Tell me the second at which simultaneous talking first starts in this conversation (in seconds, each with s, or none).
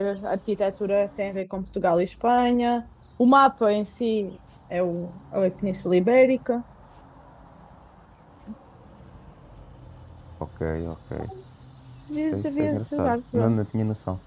12.3 s